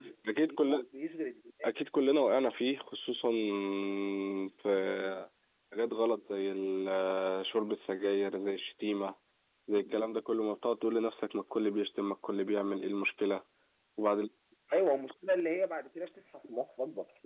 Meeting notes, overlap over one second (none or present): none